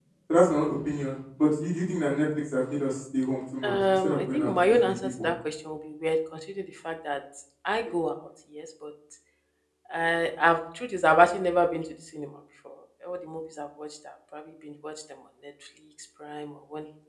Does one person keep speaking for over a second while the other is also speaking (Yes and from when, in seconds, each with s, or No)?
Yes, from 3.6 s